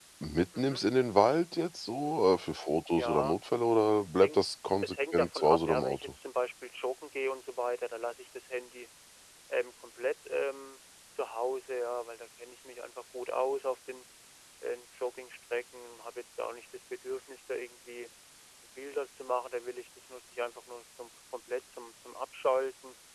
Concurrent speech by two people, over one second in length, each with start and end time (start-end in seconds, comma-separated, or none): 4.8-6.1